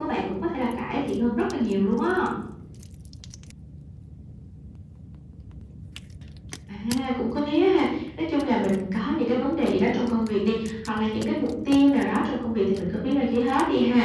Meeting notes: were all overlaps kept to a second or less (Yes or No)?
Yes